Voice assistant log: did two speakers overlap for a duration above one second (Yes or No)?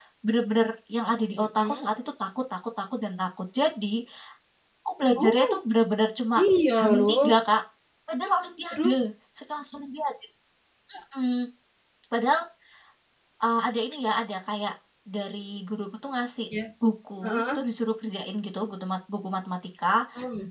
No